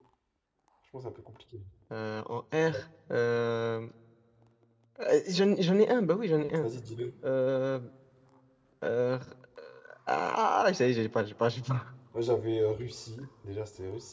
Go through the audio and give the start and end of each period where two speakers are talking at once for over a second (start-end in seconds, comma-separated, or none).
none